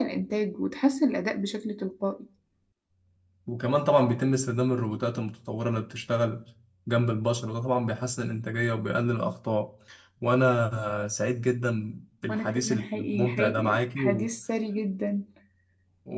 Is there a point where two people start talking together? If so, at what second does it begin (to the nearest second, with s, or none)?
12 s